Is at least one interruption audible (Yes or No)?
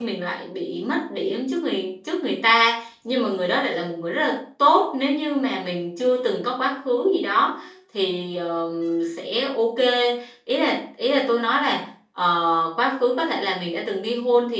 No